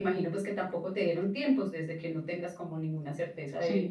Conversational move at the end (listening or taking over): taking over